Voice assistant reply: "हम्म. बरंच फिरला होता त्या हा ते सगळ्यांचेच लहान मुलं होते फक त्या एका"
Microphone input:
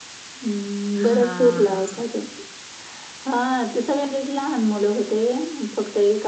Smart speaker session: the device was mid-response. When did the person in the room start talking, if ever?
0.9 s

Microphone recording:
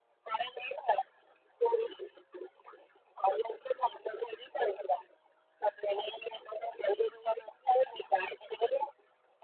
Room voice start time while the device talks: none

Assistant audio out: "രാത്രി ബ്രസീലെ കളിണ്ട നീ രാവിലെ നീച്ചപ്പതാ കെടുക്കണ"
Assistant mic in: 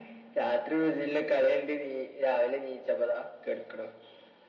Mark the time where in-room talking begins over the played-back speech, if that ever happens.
none

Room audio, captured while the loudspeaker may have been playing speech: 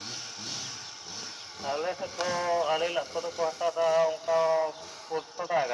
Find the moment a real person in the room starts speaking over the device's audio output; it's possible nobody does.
none

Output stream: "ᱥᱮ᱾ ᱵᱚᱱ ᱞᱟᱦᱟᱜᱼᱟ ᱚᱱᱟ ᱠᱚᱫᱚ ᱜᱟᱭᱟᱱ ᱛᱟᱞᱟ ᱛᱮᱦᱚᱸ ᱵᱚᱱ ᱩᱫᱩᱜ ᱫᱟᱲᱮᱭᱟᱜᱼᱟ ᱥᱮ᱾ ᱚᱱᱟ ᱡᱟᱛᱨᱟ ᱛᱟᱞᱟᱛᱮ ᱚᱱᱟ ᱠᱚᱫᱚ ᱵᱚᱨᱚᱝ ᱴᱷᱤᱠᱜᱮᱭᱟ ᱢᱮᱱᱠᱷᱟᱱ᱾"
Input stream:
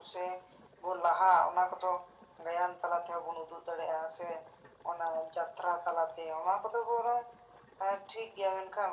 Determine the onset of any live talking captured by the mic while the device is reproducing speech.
none

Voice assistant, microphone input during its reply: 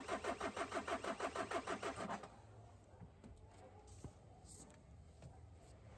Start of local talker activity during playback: none

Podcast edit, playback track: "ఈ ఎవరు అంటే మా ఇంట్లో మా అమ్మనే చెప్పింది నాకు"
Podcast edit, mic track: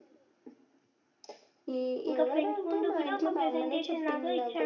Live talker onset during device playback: 2.1 s

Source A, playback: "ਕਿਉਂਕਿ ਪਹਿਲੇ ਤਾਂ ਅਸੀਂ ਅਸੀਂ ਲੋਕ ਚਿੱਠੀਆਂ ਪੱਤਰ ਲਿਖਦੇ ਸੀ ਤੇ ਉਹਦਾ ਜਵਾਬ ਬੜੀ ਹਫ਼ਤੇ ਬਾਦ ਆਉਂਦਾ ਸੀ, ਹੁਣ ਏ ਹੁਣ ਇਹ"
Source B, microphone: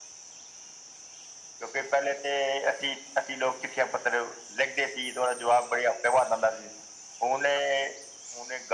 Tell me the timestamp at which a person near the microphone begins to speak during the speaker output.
none

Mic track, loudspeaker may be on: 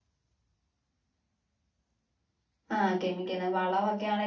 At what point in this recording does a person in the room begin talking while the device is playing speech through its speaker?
2.8 s

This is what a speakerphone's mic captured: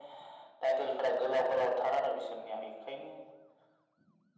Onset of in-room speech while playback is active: none

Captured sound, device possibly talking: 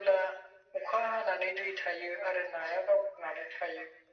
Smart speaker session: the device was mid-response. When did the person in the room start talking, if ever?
none

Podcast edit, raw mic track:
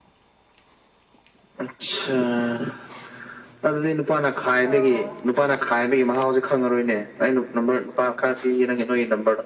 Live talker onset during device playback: 4.7 s

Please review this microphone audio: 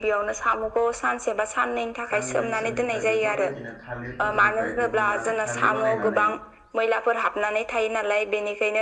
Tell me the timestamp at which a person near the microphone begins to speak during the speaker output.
2.1 s

